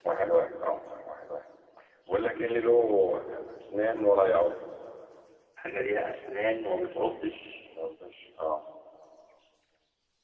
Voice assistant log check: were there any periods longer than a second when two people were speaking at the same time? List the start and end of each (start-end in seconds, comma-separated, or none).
none